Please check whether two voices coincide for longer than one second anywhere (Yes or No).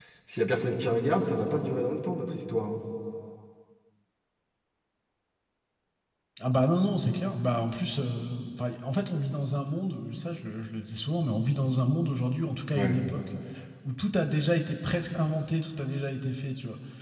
No